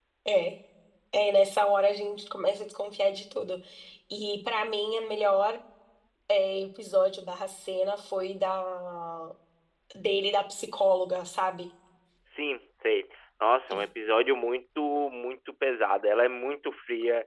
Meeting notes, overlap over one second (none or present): none